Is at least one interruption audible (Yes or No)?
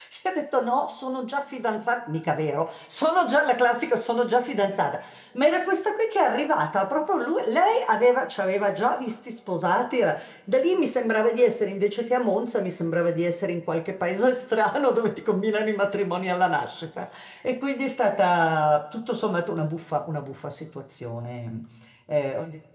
No